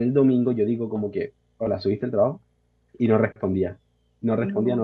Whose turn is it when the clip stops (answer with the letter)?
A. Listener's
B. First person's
B